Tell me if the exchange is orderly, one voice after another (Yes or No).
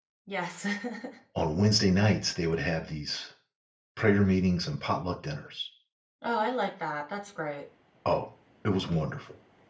Yes